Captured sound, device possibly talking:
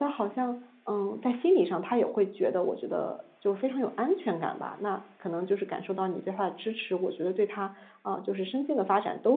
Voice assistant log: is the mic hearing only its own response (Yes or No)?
No